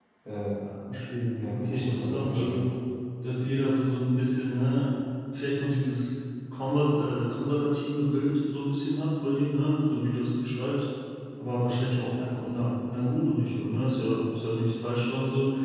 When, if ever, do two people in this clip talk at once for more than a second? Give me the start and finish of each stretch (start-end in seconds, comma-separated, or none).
1.4-2.7